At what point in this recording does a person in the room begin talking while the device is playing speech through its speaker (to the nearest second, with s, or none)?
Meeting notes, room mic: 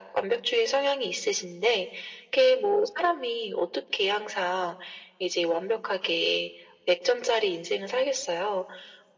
none